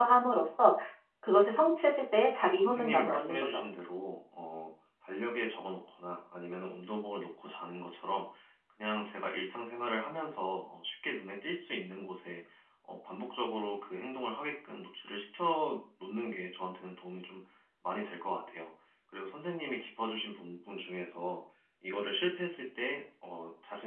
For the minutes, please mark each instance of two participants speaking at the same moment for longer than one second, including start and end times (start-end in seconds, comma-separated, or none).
2.4-3.6